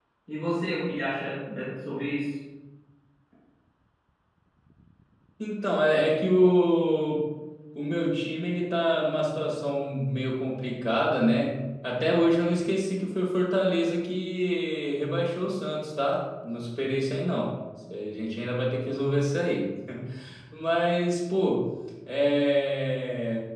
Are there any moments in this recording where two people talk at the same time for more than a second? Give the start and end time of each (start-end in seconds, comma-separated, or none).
none